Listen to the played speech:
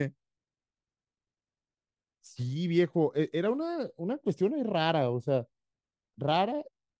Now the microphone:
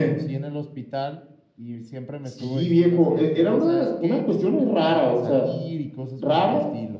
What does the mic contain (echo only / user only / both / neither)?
both